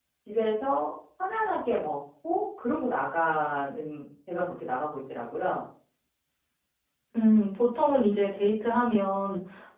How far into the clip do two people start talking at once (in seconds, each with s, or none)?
none